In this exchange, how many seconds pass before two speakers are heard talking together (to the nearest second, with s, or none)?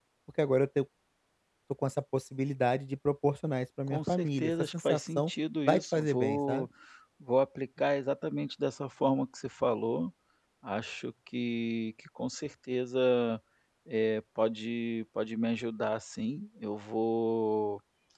4 s